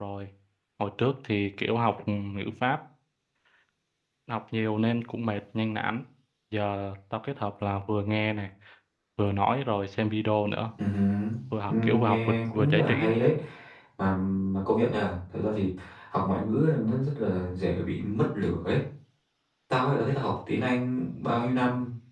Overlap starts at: 11.7 s

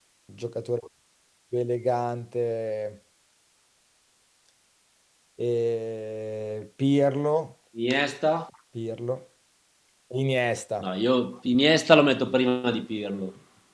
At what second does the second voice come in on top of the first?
none

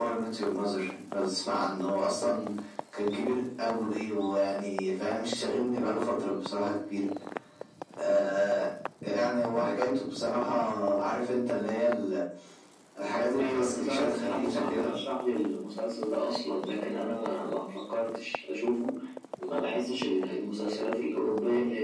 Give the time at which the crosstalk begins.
13.4 s

